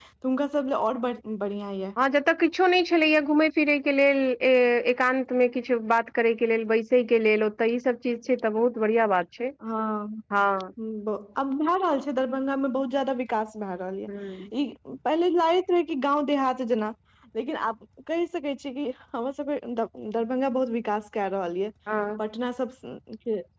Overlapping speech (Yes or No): No